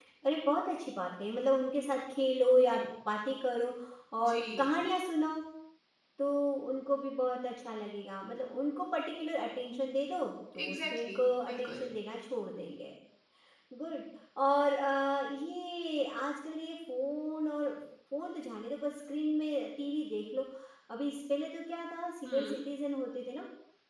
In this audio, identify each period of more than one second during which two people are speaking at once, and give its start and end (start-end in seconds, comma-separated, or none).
10.6-11.8